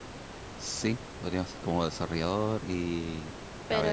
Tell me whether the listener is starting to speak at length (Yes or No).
Yes